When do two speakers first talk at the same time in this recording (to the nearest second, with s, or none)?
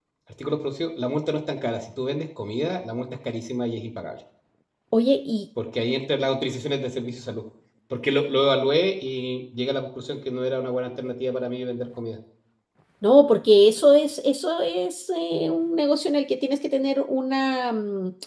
none